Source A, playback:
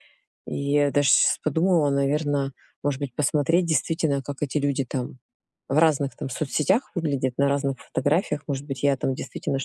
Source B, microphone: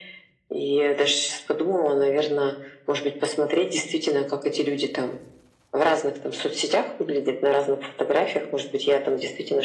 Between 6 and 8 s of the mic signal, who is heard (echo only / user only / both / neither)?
echo only